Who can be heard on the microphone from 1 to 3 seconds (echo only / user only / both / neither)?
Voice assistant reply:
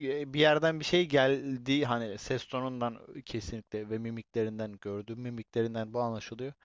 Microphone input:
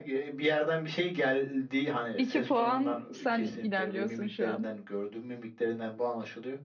both